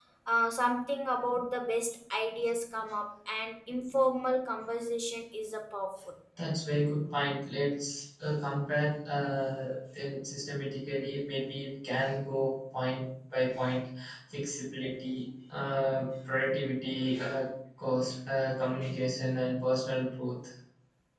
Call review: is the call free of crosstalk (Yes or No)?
Yes